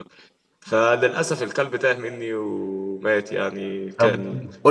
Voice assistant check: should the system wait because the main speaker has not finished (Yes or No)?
No